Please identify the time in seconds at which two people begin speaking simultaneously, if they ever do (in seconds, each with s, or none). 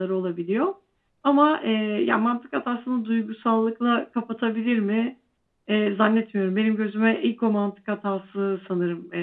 none